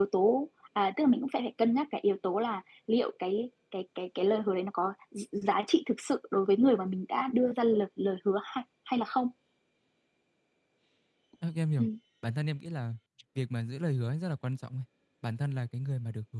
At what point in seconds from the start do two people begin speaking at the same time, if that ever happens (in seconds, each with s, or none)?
none